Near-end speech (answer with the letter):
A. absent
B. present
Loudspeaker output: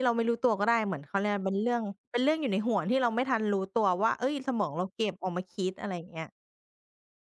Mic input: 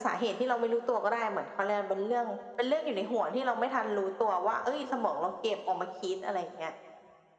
A